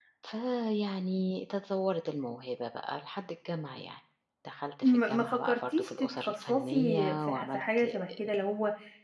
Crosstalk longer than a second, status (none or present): present